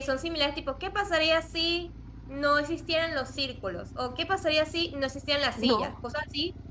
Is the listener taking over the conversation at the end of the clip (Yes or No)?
No